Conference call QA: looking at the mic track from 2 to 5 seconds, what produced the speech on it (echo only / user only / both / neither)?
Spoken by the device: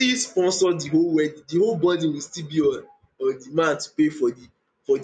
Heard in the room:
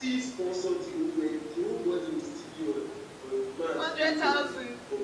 both